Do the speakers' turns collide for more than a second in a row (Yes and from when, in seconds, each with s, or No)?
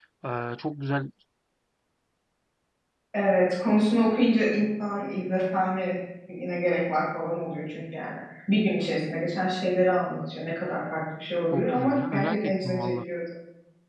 Yes, from 11.5 s